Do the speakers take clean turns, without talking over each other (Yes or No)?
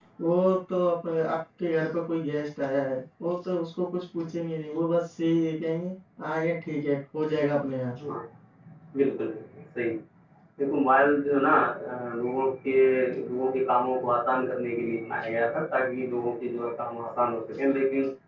Yes